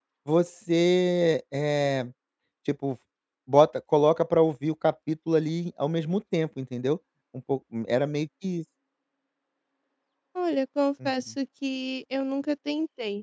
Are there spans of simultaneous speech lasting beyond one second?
No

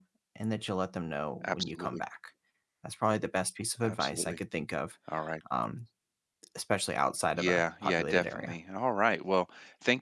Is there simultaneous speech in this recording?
Yes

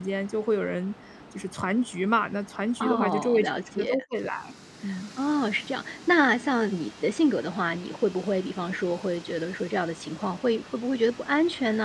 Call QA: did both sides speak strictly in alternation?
No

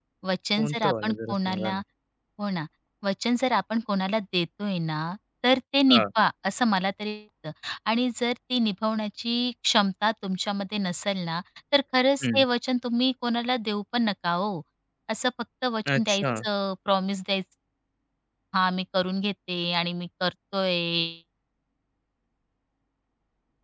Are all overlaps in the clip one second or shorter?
No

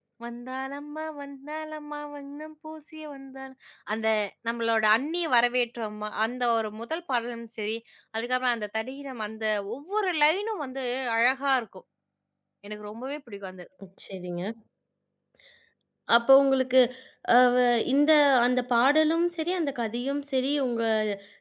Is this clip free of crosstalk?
Yes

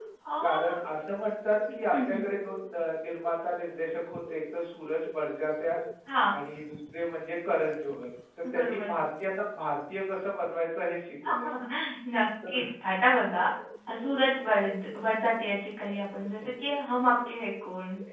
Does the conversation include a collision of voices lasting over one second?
No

